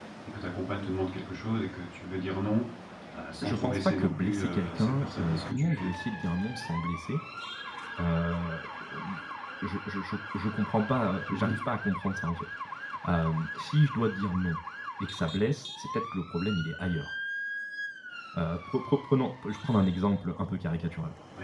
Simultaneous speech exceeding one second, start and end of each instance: 3.4-5.9

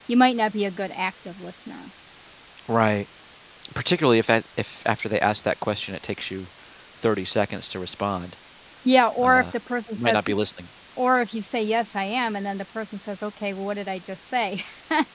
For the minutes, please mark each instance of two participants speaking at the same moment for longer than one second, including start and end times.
none

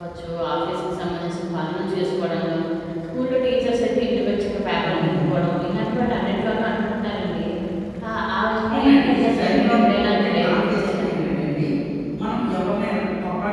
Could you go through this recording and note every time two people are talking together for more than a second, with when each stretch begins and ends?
8.7-11.1

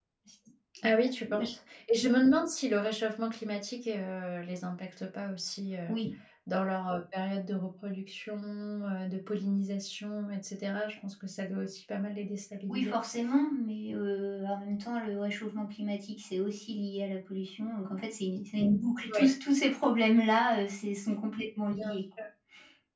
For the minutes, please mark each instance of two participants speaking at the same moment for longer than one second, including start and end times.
none

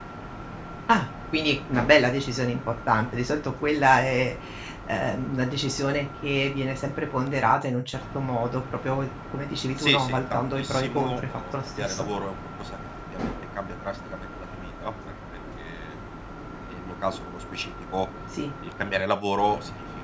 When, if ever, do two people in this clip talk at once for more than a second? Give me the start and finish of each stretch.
9.8-12.1

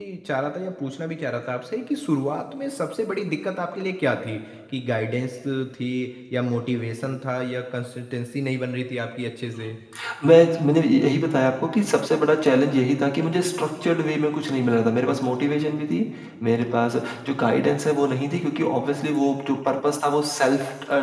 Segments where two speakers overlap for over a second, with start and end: none

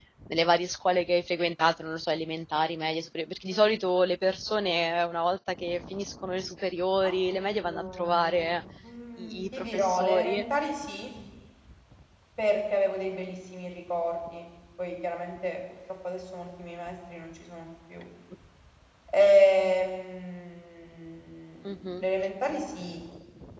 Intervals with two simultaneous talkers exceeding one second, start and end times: 7.0-8.5, 9.2-10.4

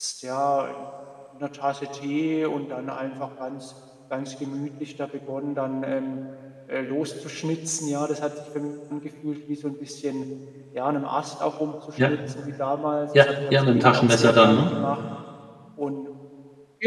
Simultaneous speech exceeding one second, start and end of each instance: 13.2-14.7

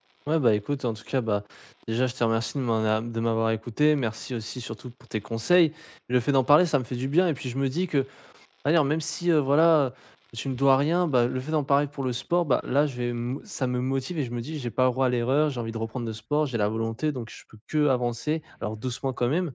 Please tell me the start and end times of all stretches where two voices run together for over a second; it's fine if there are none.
none

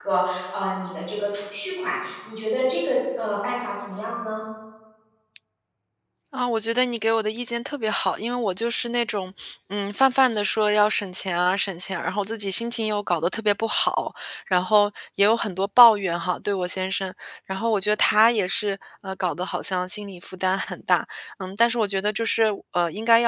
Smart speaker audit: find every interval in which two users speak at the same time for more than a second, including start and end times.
none

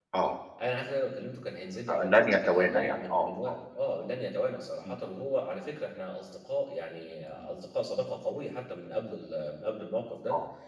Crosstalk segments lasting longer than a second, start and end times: 1.9-3.5

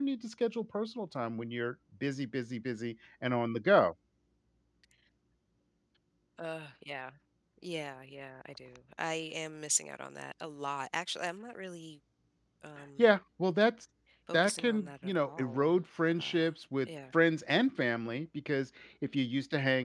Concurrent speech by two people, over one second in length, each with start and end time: 14.3-15.7

